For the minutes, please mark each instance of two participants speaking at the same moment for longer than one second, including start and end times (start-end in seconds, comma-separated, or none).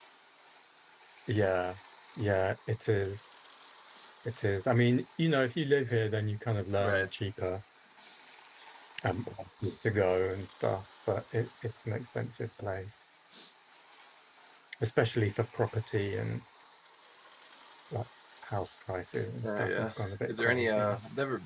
19.4-21.0